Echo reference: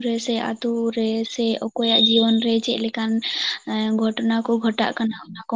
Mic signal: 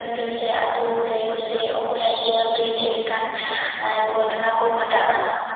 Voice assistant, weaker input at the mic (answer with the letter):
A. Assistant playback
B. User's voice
B